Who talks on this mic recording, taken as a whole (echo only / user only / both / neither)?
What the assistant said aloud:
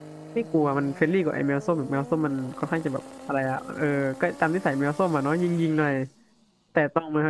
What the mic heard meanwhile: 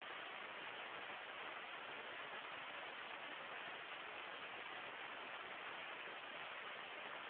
neither